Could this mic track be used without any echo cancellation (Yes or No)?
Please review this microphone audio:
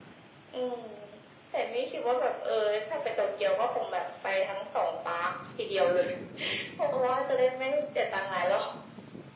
No